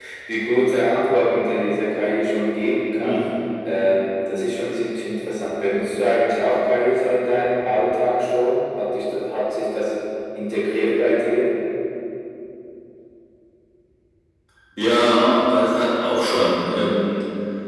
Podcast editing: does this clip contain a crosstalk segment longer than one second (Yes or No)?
No